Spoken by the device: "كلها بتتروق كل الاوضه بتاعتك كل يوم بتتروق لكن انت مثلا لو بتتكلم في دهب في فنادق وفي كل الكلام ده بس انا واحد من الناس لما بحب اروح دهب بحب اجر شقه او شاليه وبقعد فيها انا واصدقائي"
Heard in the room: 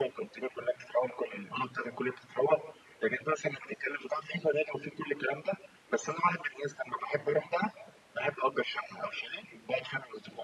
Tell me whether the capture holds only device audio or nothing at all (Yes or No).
Yes